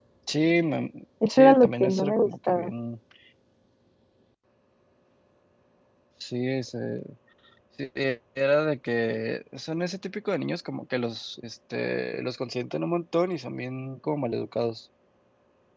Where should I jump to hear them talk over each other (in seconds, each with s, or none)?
1.3 s